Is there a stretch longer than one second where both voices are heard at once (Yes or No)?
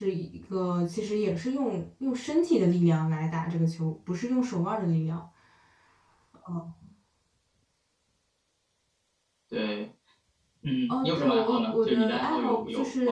Yes